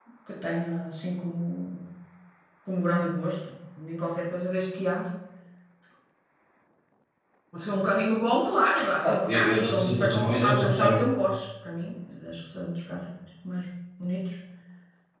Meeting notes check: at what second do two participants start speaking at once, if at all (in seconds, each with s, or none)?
9.0 s